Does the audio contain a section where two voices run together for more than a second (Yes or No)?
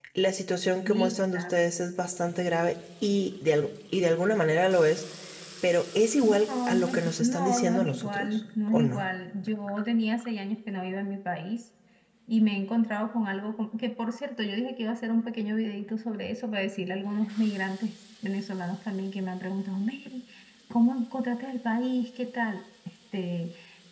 Yes